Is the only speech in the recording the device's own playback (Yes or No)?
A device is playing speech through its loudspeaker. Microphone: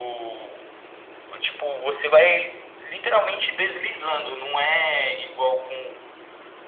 Yes